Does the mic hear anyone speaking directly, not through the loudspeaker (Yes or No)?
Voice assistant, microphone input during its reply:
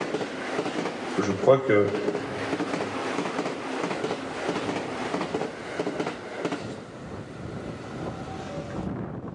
Yes